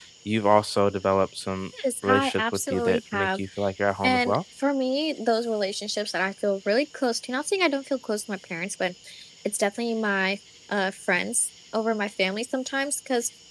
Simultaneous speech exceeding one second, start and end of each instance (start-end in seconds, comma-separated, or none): 2.0-3.4